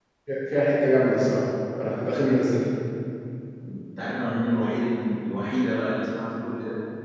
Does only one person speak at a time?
Yes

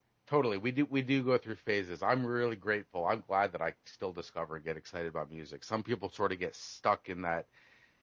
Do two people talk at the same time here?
No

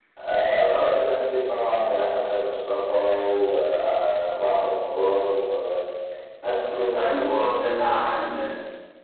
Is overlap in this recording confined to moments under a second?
Yes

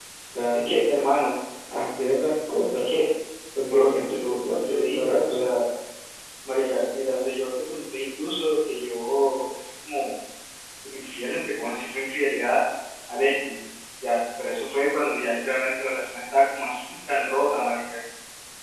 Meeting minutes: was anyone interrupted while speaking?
Yes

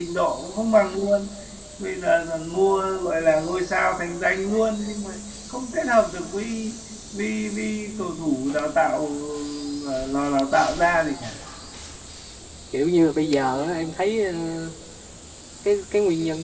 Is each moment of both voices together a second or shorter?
Yes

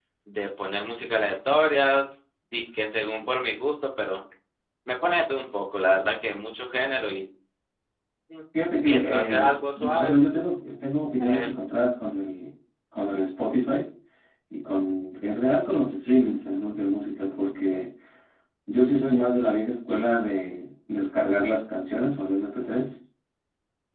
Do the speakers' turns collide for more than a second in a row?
Yes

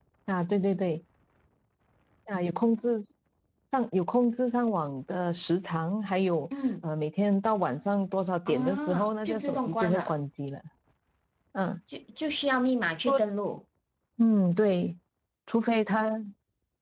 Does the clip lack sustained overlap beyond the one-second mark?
No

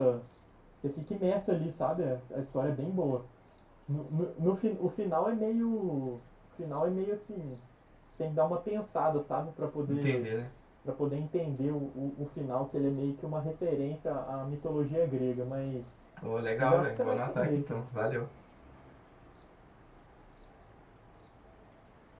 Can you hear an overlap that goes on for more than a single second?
Yes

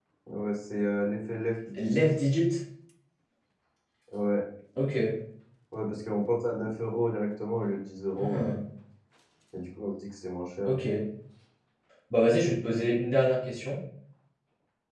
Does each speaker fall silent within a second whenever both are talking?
Yes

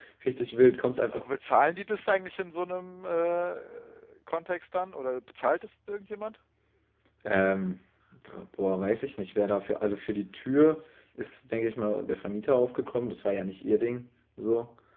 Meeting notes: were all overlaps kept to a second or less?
Yes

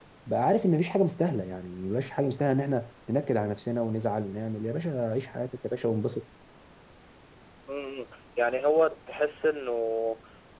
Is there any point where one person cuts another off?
No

